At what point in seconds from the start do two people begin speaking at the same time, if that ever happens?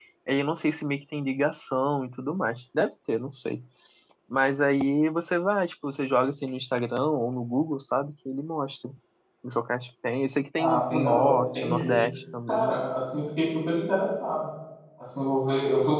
11 s

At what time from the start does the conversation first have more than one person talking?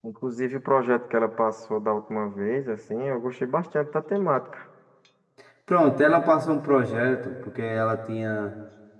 none

